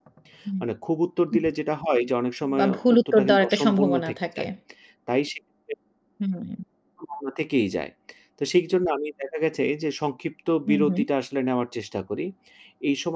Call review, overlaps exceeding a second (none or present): present